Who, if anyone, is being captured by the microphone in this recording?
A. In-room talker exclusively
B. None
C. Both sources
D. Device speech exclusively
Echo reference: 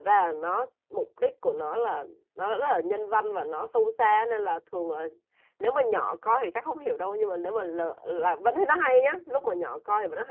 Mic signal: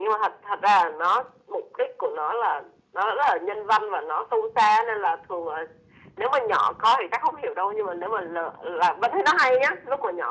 D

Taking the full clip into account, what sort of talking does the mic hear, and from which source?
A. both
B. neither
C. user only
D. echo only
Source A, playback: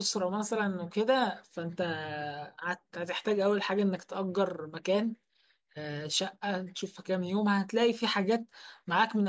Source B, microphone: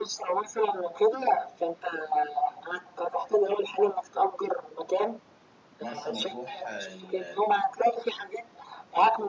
A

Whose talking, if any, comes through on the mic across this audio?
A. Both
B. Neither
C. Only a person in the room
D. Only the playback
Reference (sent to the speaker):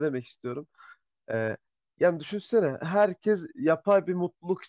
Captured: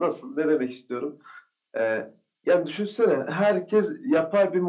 D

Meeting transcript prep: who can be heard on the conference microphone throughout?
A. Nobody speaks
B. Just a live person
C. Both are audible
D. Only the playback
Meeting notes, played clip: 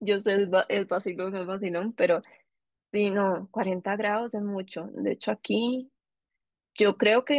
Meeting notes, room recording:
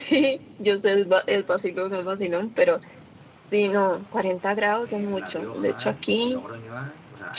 C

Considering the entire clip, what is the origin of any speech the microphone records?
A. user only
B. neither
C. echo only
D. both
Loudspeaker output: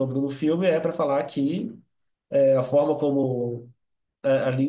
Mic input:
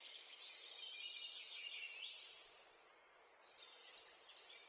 B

